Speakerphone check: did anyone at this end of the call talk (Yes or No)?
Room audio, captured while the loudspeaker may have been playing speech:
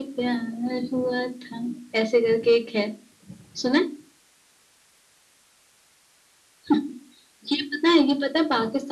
No